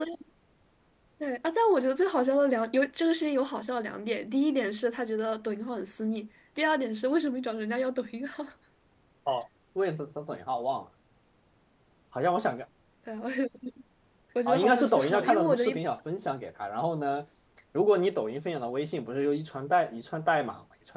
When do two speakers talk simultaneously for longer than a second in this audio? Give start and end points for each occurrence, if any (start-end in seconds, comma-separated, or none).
14.5-15.8